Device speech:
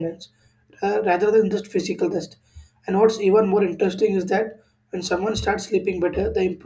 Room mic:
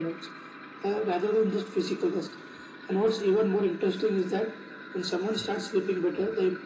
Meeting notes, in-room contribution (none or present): none